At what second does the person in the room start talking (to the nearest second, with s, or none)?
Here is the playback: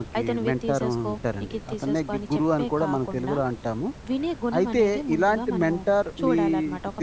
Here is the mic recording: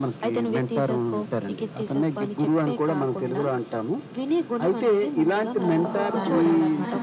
6 s